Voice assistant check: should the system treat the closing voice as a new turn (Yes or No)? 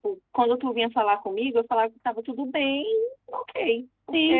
Yes